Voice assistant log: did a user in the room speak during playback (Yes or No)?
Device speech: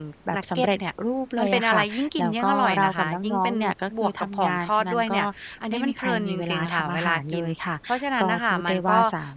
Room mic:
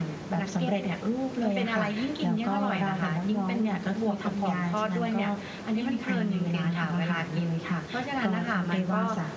No